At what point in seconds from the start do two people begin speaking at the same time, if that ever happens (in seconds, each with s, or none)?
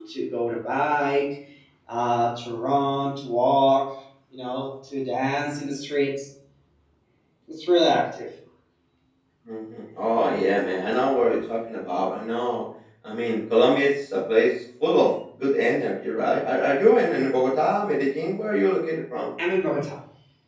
none